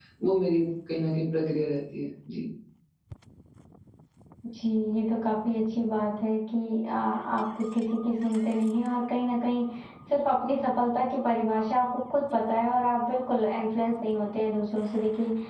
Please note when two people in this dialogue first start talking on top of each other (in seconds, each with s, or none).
none